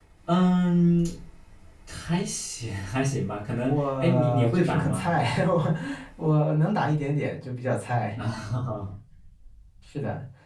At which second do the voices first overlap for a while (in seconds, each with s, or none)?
3.7 s